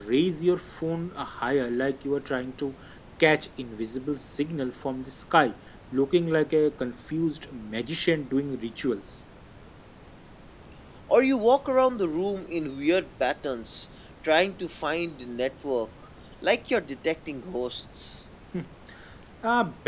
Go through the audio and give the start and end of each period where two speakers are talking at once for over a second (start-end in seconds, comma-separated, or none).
none